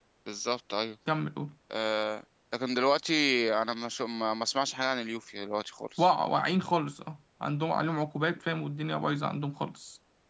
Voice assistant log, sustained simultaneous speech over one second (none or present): none